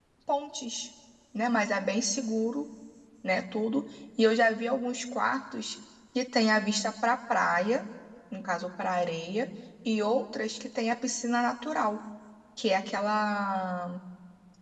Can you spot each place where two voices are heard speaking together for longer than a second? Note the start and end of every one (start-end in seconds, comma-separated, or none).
none